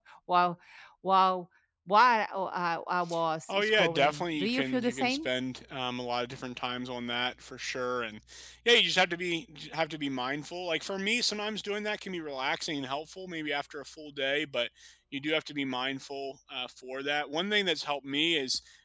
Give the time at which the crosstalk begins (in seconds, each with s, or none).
3.5 s